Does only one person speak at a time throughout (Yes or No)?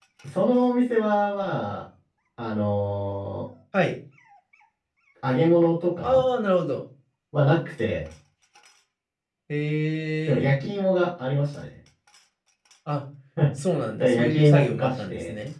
No